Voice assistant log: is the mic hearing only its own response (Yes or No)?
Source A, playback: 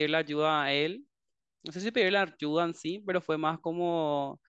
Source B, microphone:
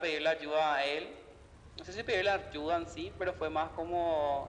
Yes